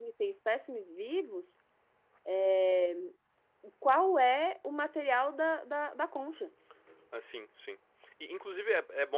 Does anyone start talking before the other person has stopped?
No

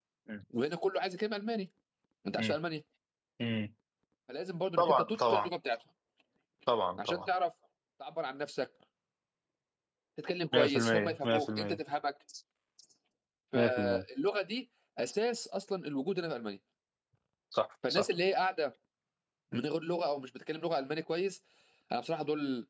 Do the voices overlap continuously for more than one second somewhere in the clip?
Yes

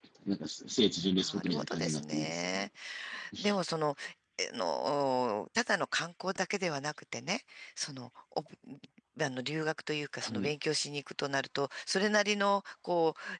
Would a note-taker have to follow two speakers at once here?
Yes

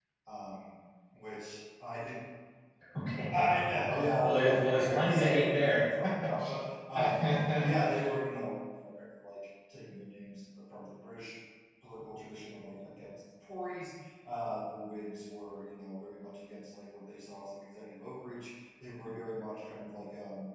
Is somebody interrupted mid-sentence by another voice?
Yes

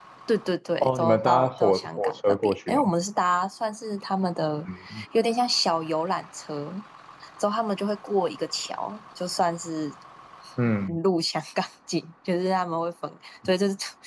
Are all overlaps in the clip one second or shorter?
No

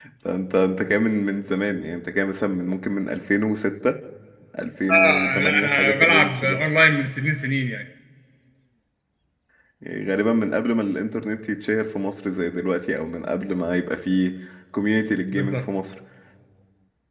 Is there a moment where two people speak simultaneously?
Yes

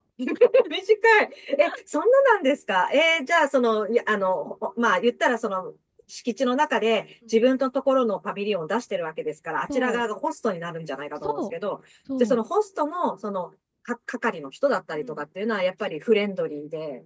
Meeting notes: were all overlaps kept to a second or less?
Yes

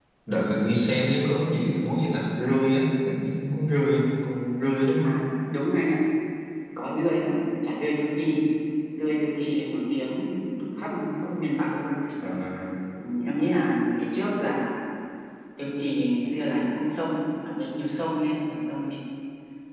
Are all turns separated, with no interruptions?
Yes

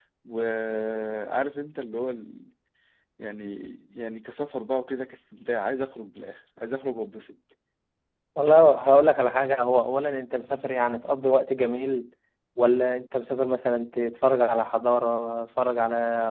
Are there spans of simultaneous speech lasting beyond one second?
No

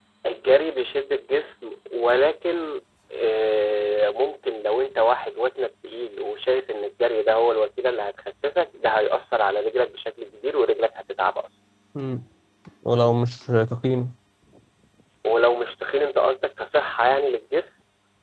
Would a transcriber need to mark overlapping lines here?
No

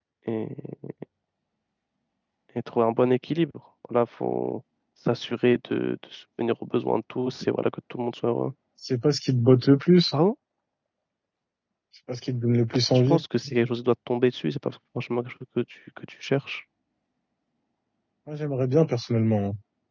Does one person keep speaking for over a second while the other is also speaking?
No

